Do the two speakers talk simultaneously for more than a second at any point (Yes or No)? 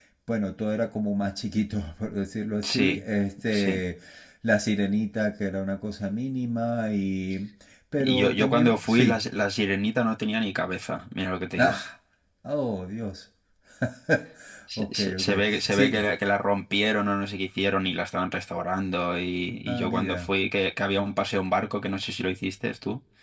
Yes